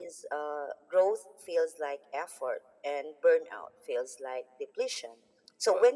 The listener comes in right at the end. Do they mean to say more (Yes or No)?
No